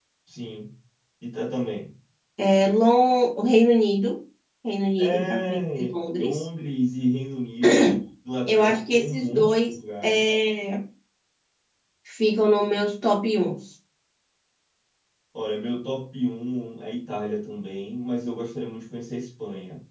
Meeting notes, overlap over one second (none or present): present